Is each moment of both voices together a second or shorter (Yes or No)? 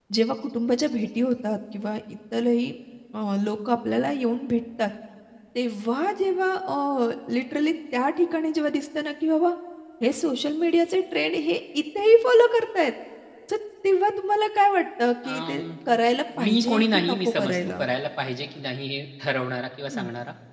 No